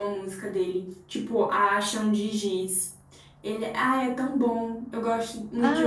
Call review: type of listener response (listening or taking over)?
taking over